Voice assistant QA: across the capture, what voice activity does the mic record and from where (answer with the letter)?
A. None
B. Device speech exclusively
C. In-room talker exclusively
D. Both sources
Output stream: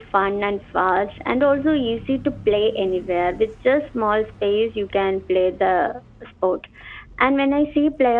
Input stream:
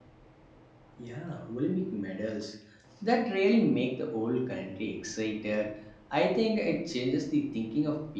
C